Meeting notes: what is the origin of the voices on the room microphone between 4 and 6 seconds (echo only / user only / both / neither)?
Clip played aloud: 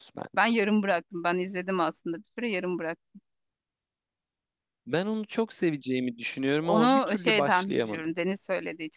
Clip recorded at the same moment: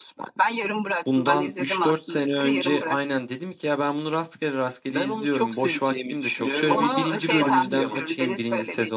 both